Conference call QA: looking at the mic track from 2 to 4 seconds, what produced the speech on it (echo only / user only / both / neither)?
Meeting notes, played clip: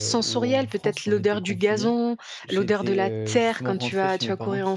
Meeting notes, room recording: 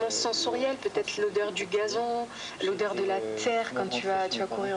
echo only